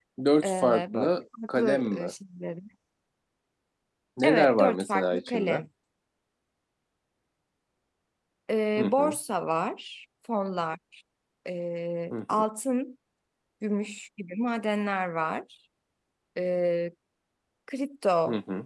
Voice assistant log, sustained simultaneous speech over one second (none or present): present